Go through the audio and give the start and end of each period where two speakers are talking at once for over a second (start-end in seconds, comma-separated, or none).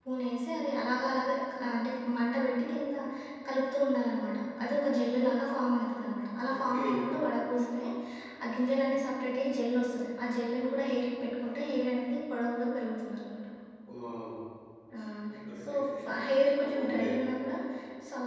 none